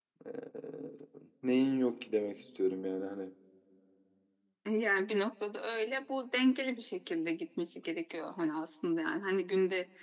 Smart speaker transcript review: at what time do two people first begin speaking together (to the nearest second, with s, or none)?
none